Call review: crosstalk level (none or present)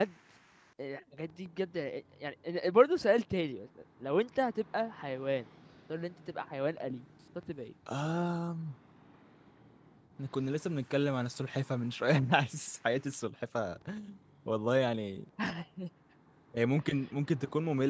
none